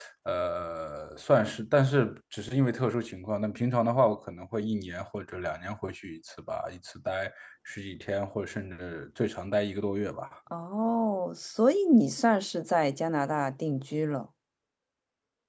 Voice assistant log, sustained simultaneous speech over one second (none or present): none